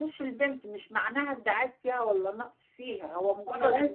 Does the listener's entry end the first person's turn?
No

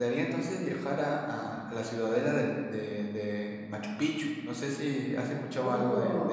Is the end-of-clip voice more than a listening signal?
Yes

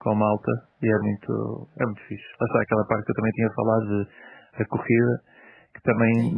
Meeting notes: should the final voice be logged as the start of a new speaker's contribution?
No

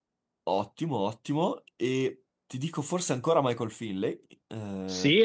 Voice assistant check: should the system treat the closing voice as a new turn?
Yes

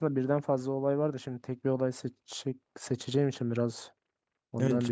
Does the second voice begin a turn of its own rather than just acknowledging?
Yes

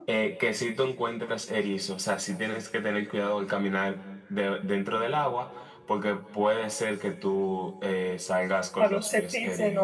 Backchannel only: No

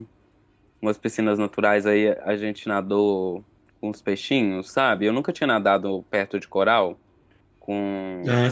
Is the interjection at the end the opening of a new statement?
Yes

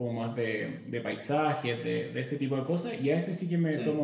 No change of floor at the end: Yes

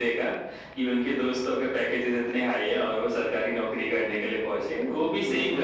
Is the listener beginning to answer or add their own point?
No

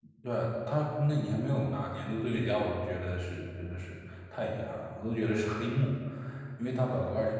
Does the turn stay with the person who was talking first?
Yes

